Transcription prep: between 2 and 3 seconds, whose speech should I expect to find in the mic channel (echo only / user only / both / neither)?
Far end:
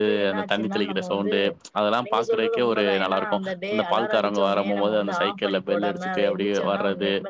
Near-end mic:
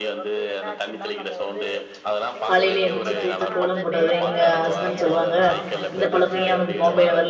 both